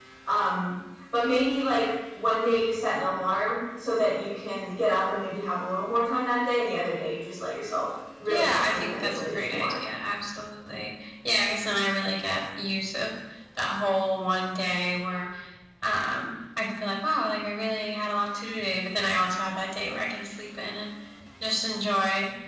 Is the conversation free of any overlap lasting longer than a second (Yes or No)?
No